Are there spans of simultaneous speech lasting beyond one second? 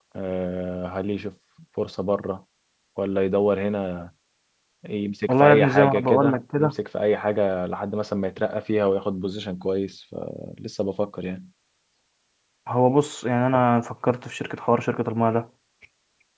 Yes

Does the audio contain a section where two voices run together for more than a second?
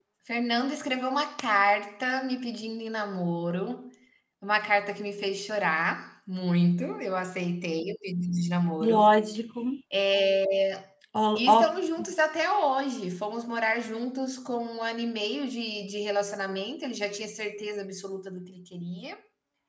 No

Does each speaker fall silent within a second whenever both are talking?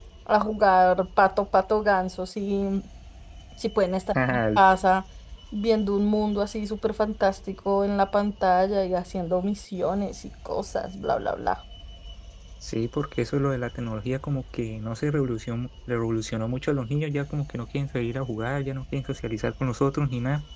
Yes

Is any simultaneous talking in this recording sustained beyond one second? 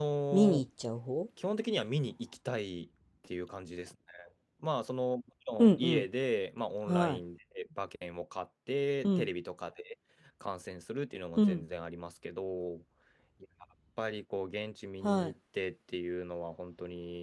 No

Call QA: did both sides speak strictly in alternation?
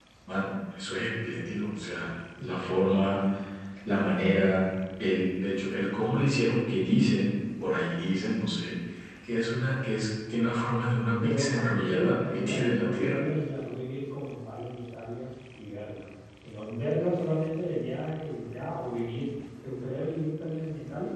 No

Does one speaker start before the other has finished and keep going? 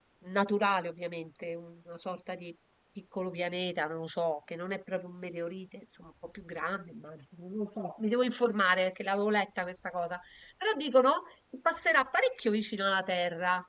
No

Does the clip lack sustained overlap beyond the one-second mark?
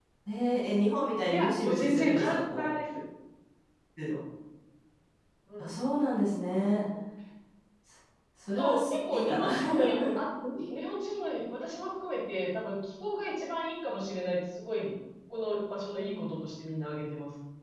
No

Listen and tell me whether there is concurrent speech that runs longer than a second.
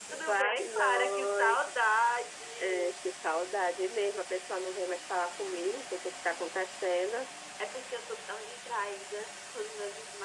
Yes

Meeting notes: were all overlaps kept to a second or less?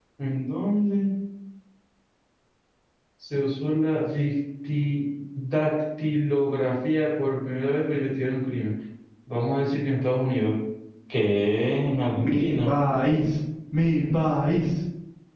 Yes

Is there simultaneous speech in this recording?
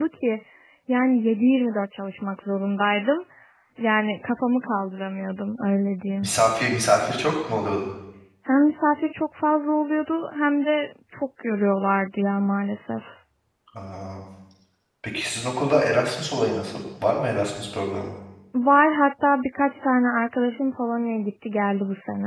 No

